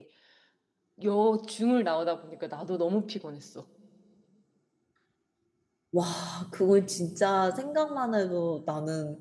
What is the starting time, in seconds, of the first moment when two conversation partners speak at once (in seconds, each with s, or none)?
none